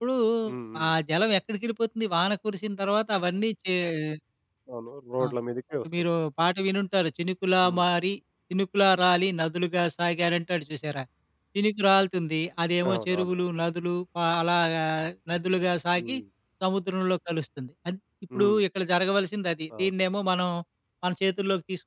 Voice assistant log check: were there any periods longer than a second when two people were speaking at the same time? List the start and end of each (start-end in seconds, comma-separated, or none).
none